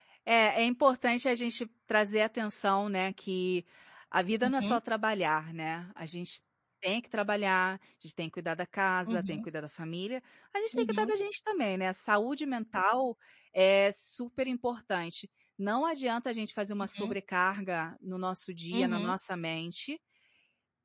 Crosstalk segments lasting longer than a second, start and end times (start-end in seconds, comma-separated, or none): none